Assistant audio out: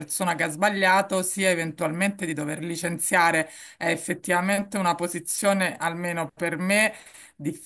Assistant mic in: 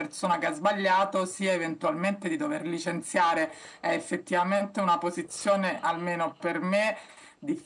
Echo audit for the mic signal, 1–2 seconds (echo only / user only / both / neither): echo only